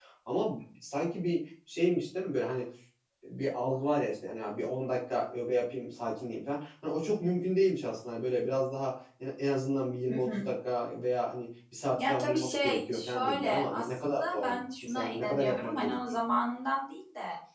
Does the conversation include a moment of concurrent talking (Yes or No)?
Yes